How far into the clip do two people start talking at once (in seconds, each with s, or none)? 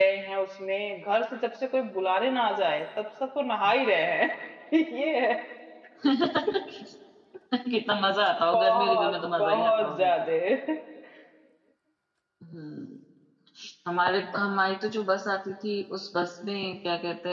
8.5 s